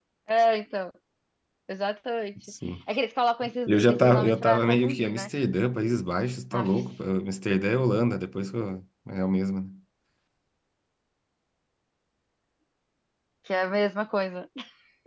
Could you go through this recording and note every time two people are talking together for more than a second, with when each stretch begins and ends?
3.7-5.3

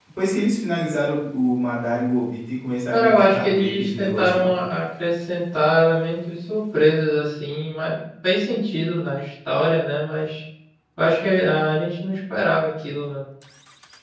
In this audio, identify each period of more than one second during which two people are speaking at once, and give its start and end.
2.9-4.5

